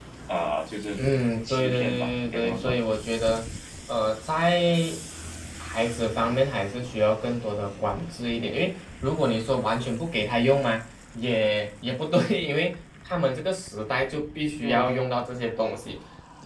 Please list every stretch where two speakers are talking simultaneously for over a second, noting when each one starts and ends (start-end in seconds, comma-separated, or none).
1.4-2.8